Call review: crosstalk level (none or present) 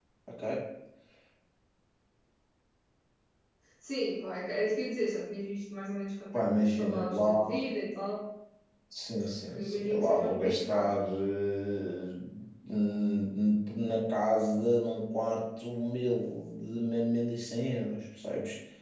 present